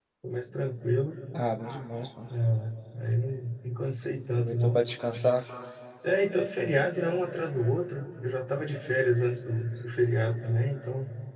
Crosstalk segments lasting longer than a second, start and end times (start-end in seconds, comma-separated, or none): none